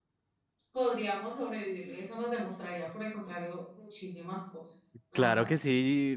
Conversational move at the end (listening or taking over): taking over